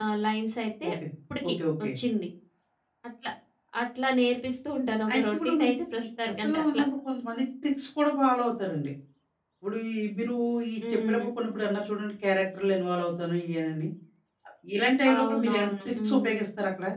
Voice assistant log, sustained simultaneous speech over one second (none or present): present